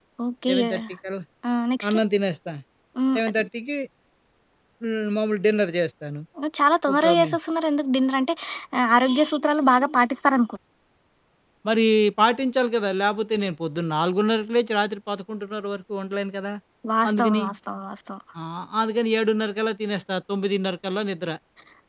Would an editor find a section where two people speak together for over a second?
No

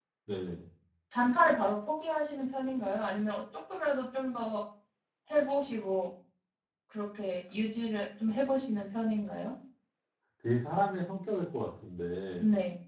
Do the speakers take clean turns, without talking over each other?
Yes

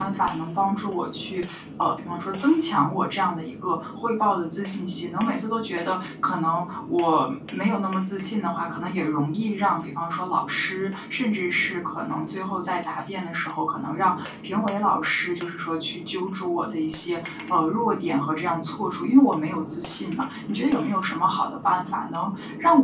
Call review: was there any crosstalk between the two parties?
No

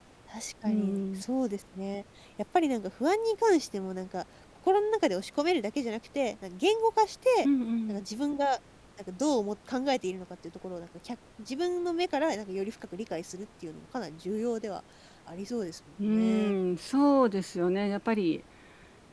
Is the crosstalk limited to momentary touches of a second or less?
Yes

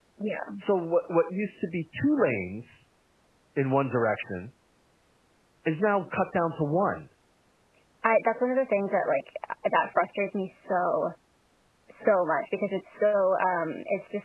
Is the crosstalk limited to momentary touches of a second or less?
Yes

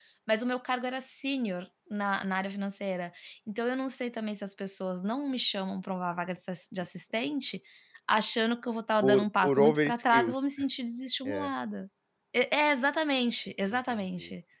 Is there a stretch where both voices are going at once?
Yes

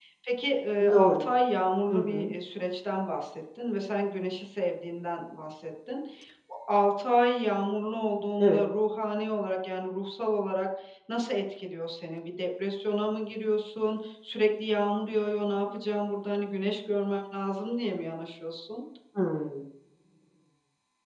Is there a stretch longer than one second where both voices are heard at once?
No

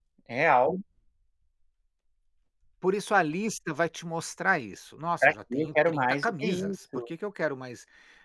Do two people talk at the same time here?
Yes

